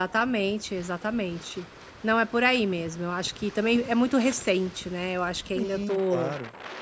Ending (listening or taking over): taking over